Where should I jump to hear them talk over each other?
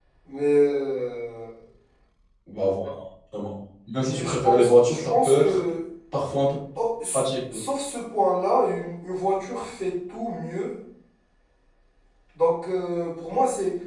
4.1 s

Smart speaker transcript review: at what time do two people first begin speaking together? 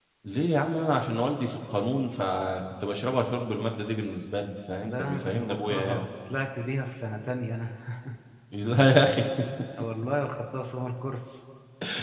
4.8 s

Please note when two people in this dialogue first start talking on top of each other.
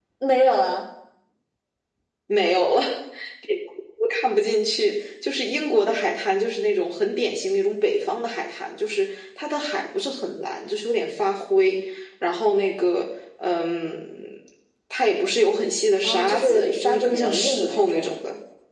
16.0 s

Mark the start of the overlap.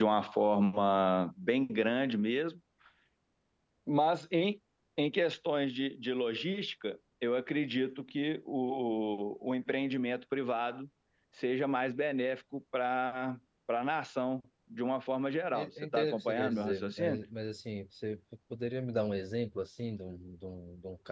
15.5 s

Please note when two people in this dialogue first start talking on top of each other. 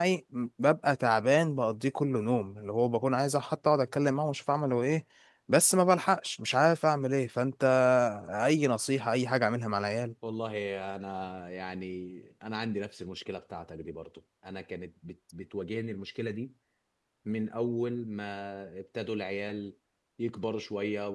none

